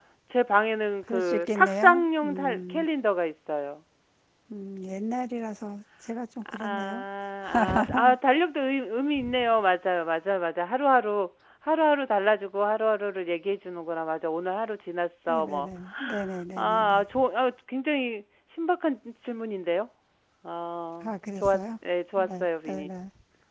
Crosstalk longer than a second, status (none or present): present